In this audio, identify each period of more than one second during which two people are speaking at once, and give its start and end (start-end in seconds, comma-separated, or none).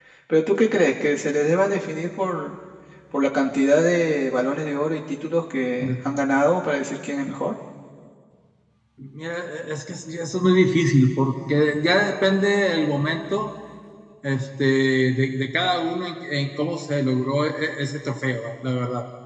none